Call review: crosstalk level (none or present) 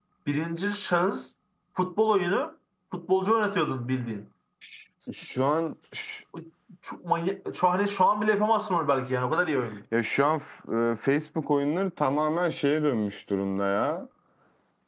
none